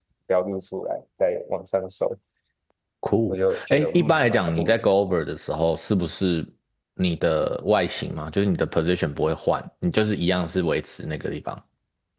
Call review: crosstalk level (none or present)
present